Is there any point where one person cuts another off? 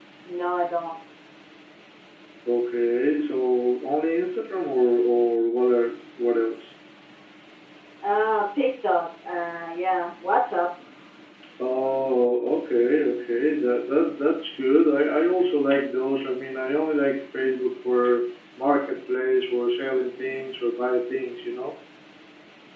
No

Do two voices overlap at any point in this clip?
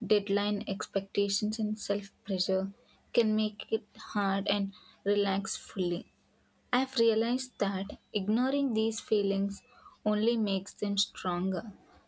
No

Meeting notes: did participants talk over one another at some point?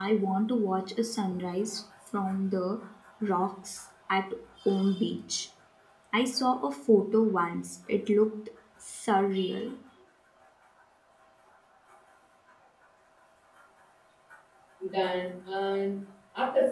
No

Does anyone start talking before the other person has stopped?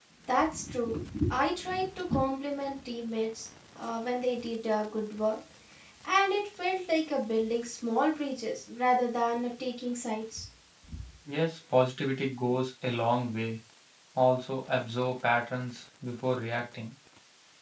No

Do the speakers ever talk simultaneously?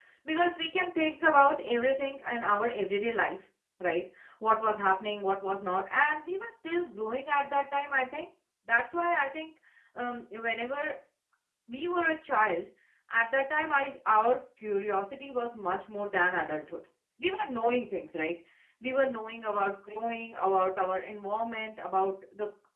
No

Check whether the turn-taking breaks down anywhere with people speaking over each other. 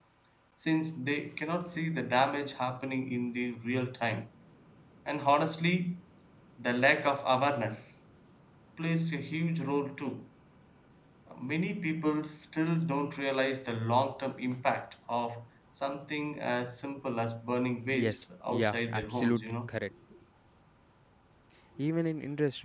Yes, from 17.8 s

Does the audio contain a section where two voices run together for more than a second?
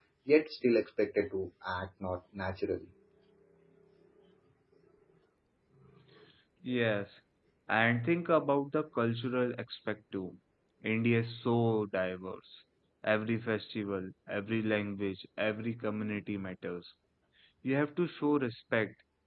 No

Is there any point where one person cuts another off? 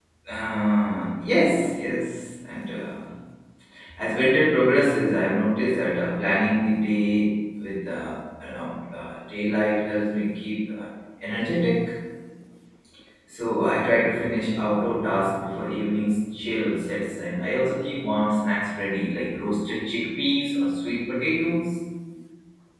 No

